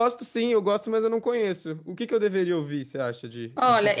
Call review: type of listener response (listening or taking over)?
taking over